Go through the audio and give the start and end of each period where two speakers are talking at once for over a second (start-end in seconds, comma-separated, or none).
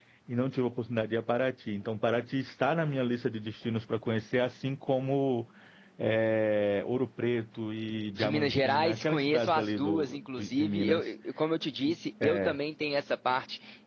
8.2-11.1